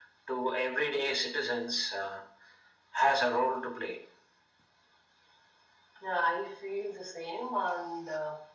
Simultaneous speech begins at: none

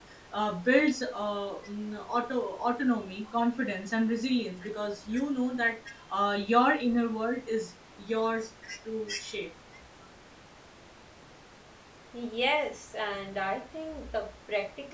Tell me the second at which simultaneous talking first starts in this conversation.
none

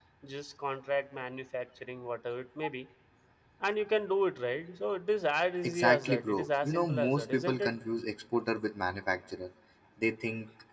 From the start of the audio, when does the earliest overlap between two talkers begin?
6 s

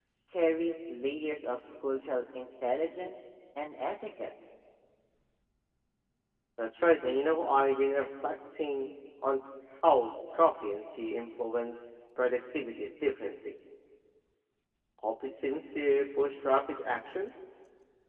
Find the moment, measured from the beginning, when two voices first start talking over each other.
none

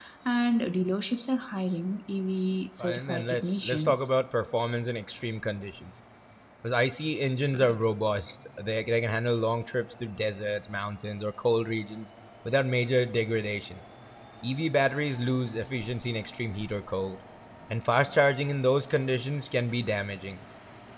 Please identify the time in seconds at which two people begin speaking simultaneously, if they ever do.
3 s

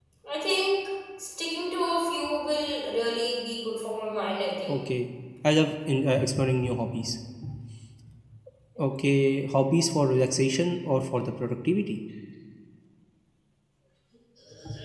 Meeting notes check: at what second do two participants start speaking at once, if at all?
none

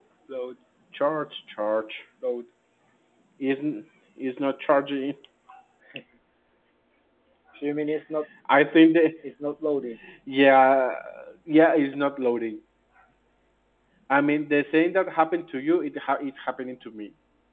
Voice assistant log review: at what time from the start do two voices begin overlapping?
none

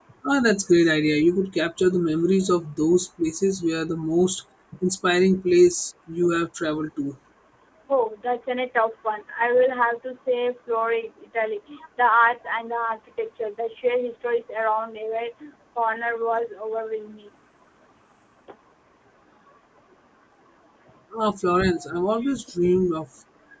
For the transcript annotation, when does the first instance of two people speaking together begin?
none

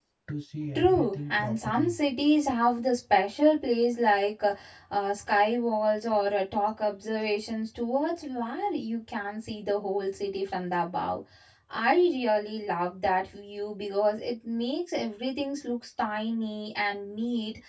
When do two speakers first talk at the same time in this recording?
1 s

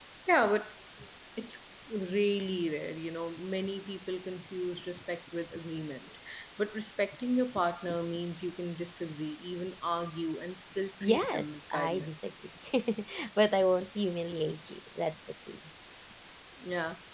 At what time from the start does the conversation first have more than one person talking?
11 s

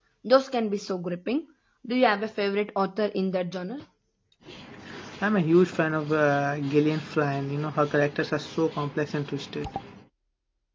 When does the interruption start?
none

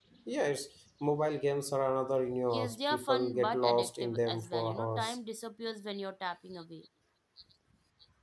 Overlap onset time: 3 s

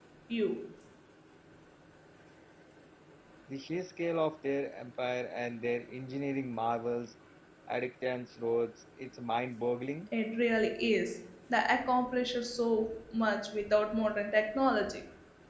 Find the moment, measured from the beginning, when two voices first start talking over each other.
none

